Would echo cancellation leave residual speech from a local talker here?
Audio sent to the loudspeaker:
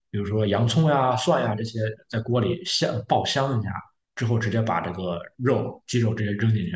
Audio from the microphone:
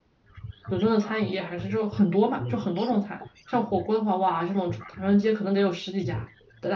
Yes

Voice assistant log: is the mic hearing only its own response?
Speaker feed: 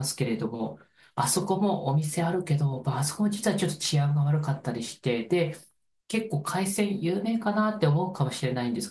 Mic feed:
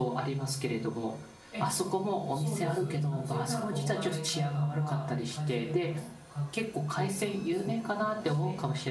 No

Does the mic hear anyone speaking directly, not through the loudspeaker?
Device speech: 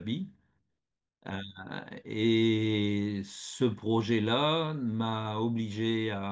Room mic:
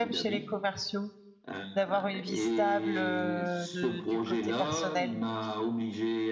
Yes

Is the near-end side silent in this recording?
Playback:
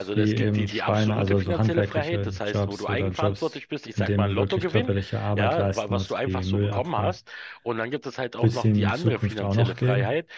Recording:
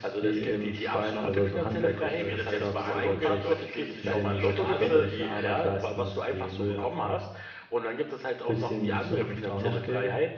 No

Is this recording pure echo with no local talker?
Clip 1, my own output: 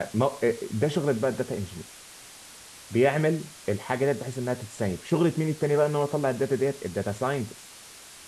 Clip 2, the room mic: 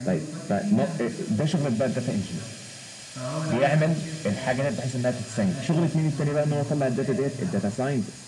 No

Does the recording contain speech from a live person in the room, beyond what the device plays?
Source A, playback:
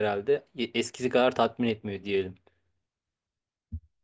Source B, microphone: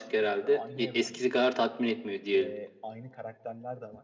Yes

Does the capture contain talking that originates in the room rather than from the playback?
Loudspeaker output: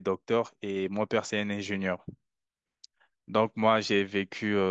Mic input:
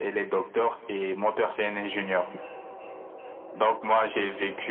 No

